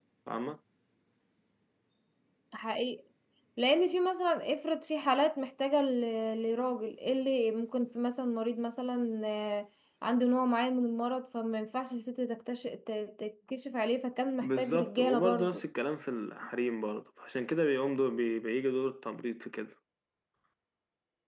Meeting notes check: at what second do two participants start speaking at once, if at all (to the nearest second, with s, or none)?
14 s